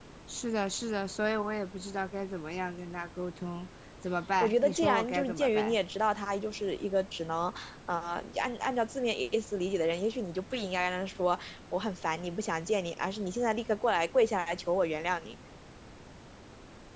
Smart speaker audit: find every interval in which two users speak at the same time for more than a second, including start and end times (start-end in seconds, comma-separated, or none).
4.4-5.8